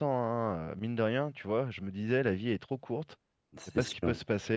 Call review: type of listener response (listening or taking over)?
listening